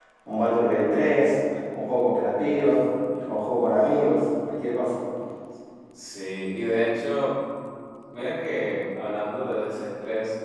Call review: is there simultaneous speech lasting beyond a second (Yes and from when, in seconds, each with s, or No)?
No